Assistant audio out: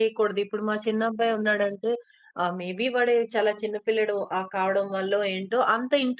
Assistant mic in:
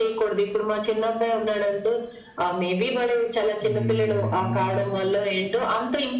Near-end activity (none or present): present